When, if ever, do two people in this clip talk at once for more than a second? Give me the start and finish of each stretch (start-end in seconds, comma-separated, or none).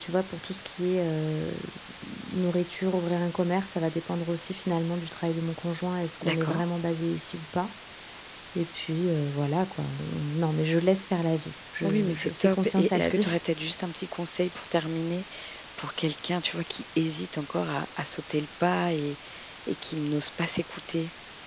11.8-13.3